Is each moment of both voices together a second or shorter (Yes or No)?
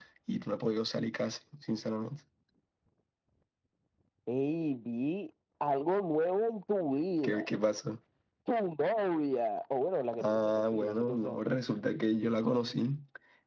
No